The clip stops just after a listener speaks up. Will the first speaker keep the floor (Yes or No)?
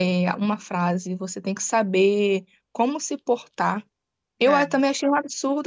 Yes